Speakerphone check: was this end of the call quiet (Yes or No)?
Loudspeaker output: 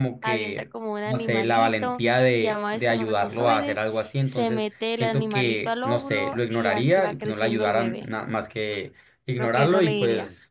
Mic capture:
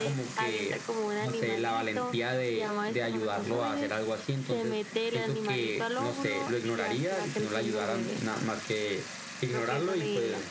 Yes